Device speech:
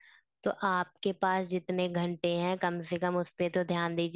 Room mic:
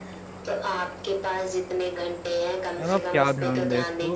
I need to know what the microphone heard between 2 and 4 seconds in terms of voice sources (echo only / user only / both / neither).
both